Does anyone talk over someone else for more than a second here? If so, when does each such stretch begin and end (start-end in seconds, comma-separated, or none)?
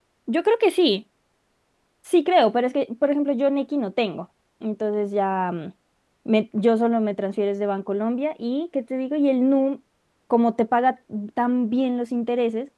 none